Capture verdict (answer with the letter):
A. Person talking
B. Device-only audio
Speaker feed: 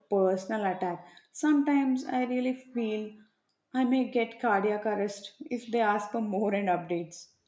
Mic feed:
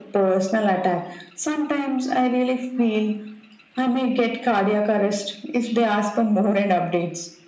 B